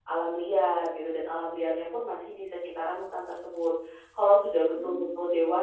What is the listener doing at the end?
listening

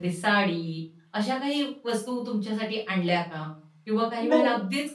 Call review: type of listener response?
listening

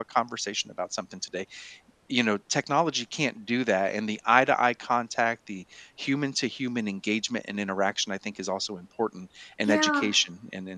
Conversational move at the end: listening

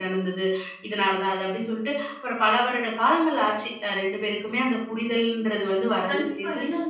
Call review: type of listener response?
taking over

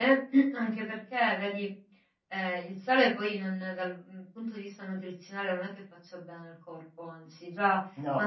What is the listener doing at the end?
listening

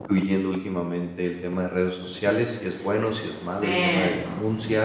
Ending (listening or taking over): listening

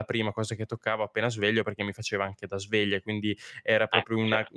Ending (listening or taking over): listening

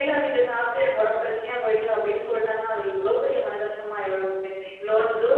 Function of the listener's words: listening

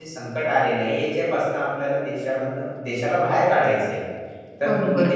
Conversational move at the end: listening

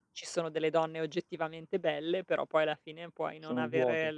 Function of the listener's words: listening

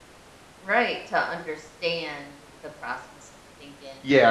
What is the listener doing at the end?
taking over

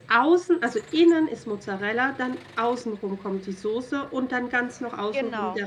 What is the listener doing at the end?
listening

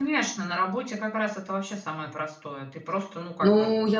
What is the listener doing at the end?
taking over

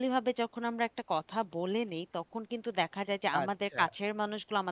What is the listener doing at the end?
listening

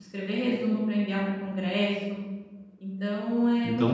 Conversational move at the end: taking over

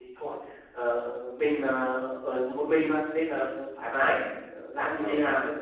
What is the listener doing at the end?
listening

